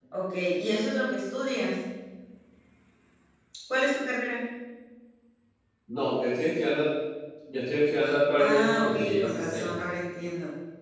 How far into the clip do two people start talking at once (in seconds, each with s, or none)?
8.4 s